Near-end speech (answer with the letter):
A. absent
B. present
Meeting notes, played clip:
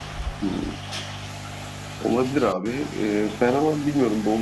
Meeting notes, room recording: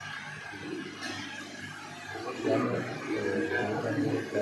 B